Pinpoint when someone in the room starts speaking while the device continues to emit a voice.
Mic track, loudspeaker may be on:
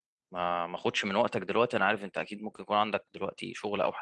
0 s

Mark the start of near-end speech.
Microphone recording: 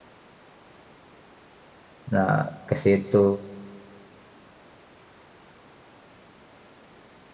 2 s

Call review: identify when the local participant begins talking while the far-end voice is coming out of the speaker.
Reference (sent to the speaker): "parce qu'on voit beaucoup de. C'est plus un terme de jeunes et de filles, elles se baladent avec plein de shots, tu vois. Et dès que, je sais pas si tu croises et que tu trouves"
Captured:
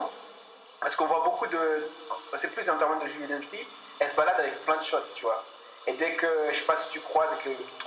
none

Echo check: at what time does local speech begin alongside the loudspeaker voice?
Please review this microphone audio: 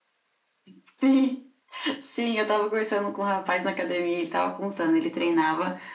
none

